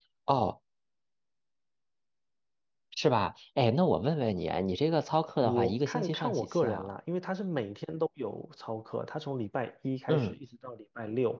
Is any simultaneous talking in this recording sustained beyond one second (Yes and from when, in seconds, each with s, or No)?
Yes, from 5.4 s